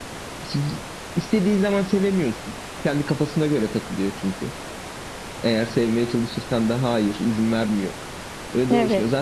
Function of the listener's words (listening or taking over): listening